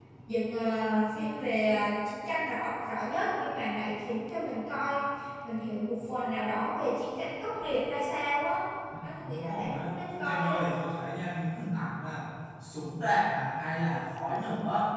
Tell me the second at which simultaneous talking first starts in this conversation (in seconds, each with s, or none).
9.0 s